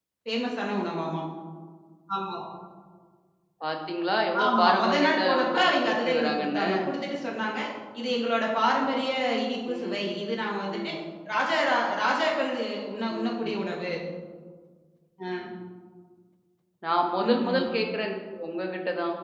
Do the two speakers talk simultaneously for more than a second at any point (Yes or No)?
Yes